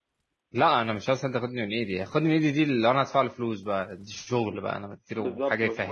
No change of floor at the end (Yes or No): No